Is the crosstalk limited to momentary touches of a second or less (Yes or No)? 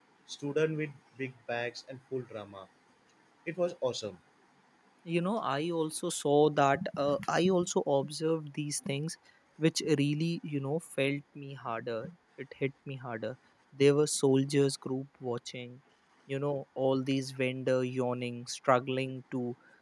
Yes